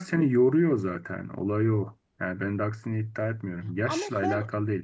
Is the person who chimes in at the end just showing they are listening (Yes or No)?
Yes